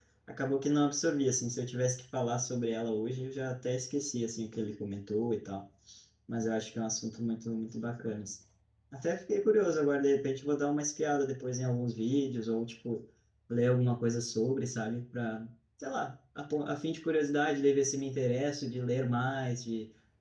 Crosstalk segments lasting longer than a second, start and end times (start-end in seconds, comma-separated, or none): none